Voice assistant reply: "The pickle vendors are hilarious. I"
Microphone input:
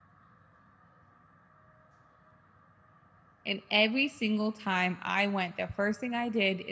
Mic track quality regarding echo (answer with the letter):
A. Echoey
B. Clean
B